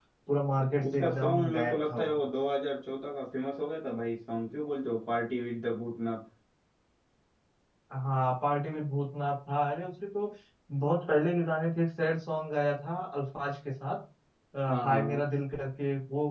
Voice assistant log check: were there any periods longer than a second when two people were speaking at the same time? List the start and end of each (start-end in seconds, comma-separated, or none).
0.9-2.1